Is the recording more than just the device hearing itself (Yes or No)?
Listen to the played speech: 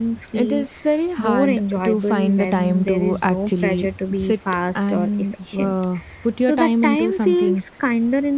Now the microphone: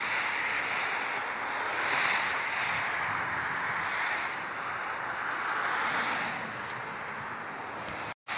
No